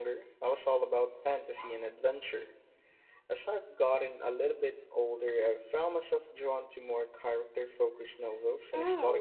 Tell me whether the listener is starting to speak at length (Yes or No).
Yes